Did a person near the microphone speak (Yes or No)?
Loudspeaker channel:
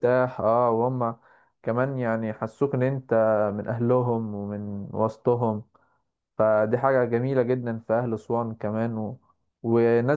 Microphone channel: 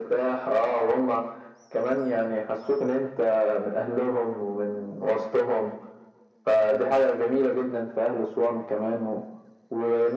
No